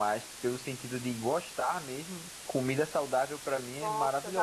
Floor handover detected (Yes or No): Yes